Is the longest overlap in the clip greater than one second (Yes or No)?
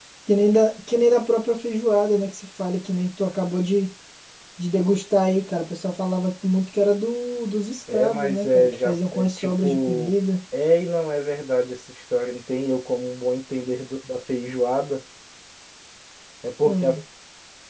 Yes